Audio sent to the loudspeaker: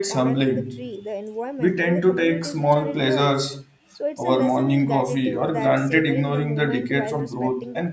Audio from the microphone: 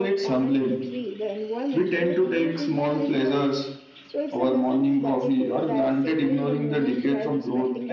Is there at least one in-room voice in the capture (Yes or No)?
No